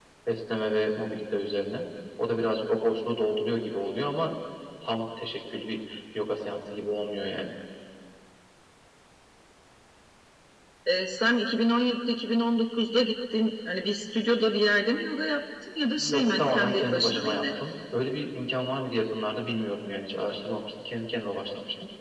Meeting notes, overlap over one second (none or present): present